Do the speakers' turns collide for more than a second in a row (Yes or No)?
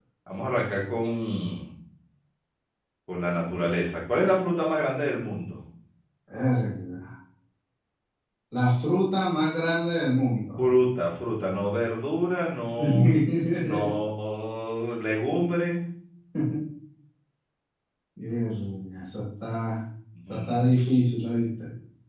No